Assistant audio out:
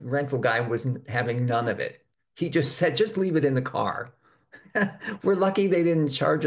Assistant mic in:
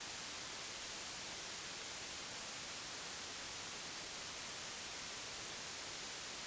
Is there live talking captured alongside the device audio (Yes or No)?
No